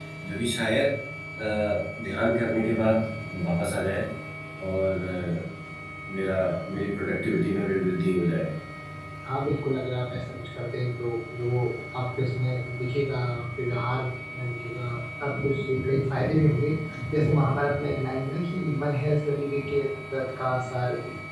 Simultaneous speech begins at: none

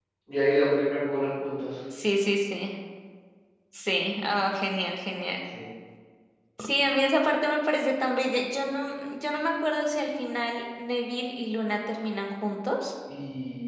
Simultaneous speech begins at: none

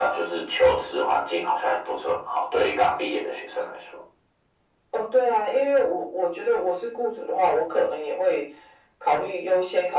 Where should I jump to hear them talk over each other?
none

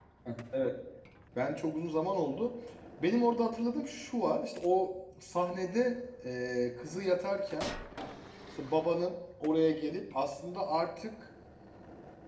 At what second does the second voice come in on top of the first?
none

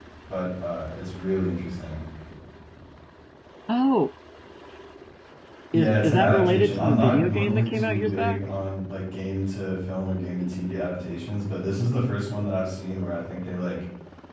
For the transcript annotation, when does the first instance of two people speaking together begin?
5.7 s

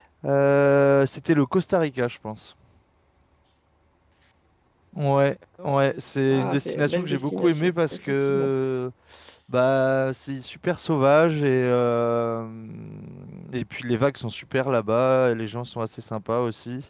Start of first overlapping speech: 6.3 s

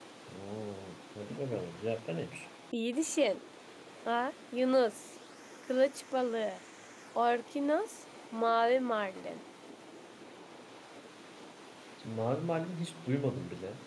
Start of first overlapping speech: none

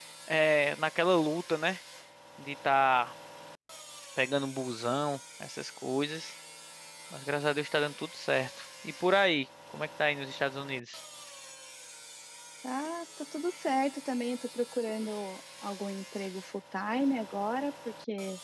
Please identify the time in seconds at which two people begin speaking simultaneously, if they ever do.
none

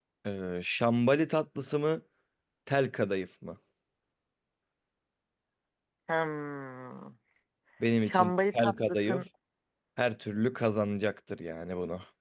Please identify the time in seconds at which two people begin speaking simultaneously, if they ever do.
8.0 s

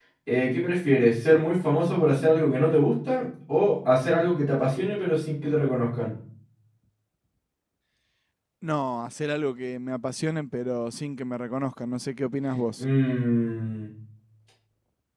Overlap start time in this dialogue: none

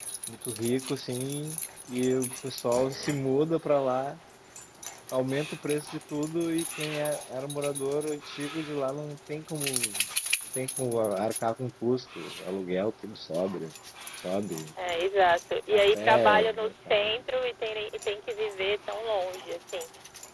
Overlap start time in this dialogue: 15.7 s

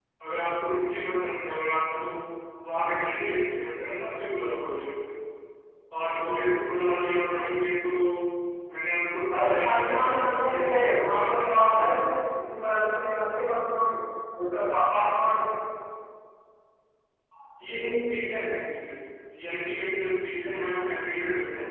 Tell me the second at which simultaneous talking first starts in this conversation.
9.3 s

